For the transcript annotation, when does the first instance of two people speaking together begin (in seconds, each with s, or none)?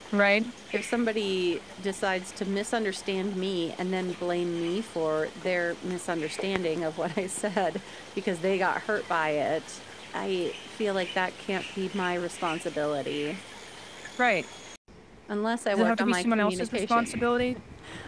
15.7 s